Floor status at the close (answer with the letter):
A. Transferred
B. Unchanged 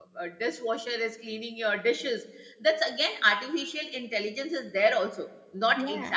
B